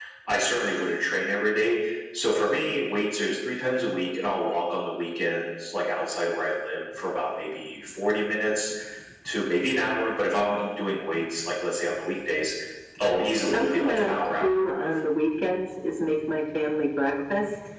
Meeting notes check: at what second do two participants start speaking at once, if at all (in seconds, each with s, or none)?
13.5 s